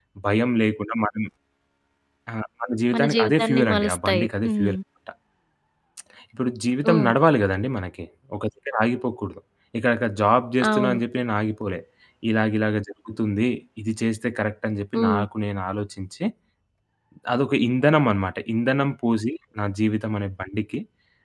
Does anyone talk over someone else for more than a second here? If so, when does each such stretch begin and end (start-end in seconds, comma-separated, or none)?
2.9-4.8